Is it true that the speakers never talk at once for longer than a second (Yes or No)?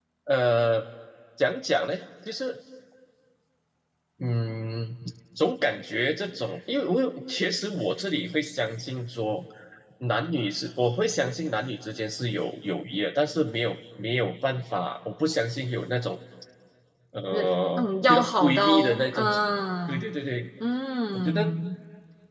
No